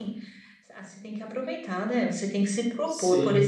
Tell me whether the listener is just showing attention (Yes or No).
Yes